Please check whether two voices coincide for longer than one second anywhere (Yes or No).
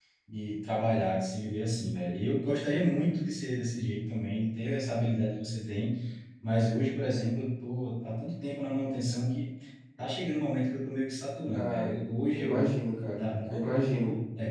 No